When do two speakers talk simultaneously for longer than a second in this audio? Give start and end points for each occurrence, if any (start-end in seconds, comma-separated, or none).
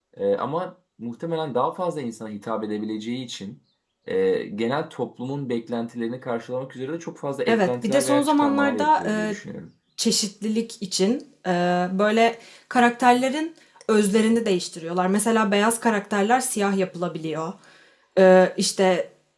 7.5-9.3